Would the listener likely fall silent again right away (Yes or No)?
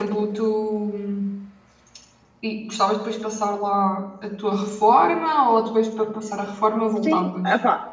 No